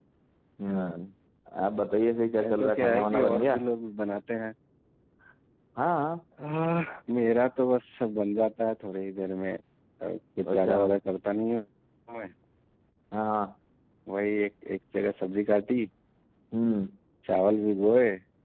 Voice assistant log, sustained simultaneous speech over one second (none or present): present